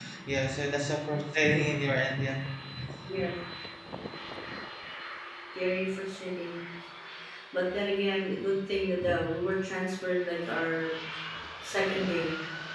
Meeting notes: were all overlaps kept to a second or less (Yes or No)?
Yes